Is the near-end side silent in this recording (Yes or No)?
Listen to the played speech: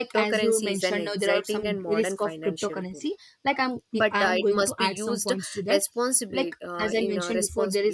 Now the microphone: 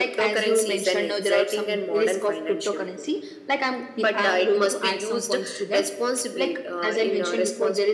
Yes